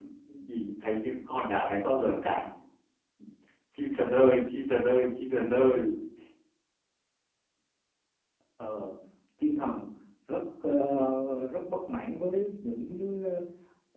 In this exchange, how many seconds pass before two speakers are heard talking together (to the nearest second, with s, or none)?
none